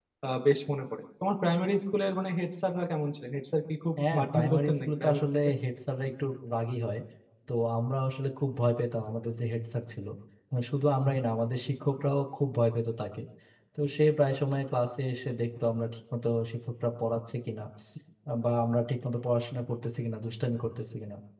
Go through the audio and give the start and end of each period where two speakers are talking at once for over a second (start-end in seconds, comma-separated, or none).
4.1-5.5